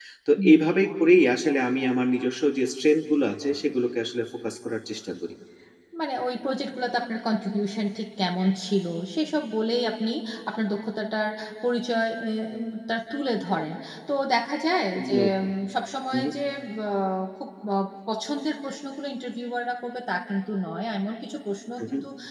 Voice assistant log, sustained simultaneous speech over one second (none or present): none